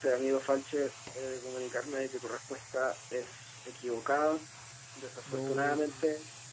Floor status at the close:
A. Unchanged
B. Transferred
A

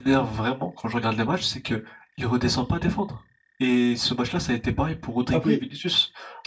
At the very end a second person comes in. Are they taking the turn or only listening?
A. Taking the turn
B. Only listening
B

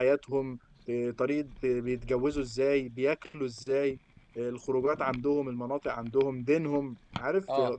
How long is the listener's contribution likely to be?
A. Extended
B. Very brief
B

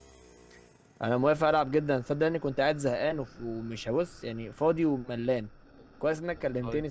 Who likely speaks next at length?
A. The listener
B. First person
B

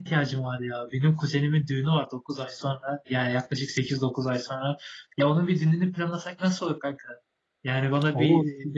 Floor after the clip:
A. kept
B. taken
A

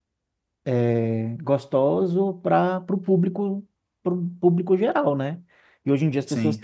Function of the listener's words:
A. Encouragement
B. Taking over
A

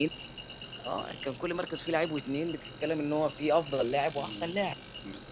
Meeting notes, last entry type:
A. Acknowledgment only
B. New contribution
B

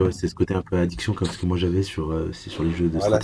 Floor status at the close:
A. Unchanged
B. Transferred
B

